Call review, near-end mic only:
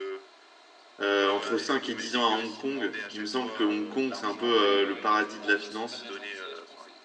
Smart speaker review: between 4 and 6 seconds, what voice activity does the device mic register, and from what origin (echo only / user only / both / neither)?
both